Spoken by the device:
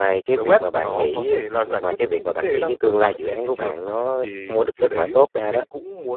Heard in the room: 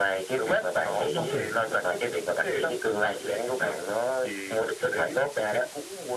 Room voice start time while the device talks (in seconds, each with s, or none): 1.0 s